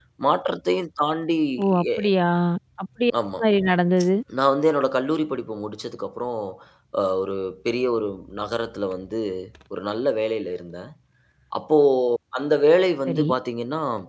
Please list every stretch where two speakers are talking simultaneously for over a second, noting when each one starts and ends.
none

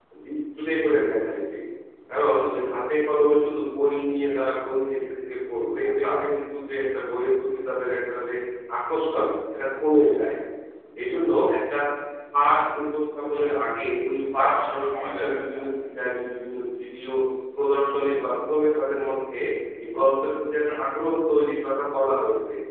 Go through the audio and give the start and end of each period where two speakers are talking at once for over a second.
14.4-15.7

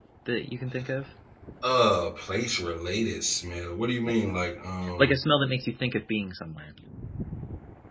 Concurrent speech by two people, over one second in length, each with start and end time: none

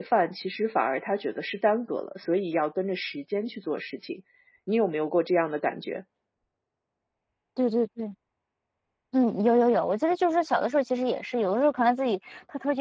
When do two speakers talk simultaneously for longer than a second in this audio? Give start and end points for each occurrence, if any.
none

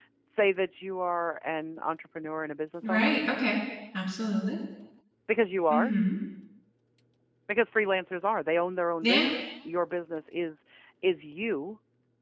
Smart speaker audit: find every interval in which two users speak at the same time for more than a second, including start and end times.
none

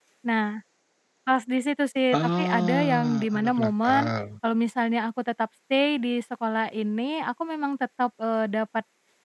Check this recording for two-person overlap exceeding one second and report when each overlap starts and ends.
2.2-4.1

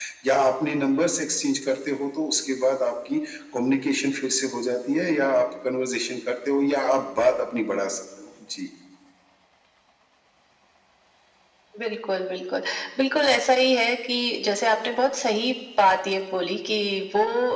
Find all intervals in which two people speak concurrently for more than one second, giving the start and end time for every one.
none

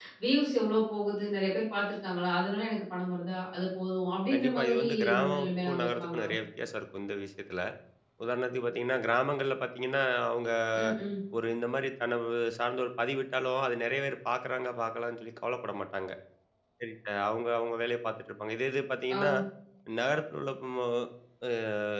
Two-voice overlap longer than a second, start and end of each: 4.3-6.3

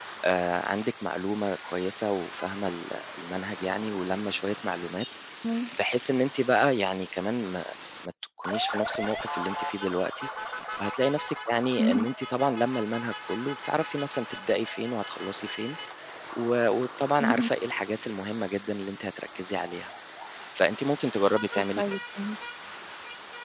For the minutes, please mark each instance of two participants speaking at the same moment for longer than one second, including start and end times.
none

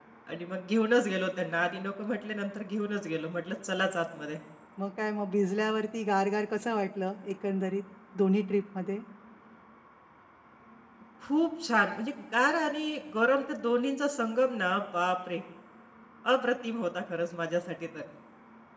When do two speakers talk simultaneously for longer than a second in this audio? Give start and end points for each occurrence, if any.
none

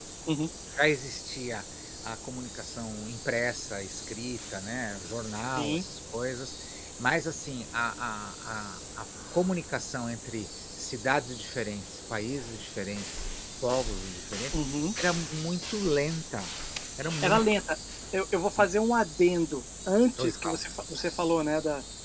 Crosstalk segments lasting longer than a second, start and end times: none

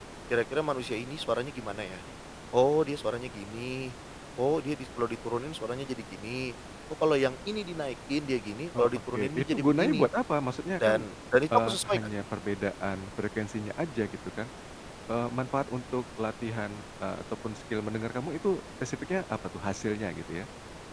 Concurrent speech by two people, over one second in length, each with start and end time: 8.8-10.1

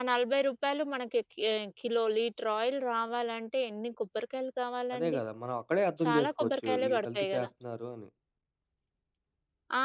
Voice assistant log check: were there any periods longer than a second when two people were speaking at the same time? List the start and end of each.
6.0-7.5

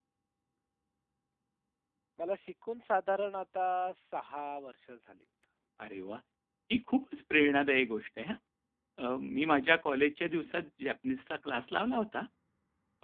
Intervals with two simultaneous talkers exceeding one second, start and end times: none

